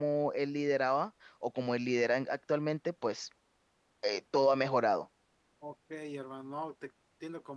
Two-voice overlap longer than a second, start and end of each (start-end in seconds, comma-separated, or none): none